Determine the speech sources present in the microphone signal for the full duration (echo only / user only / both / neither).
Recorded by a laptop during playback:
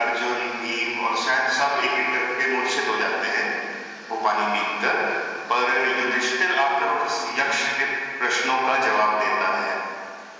echo only